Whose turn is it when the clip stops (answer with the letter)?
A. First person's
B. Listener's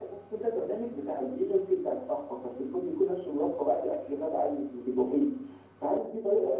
A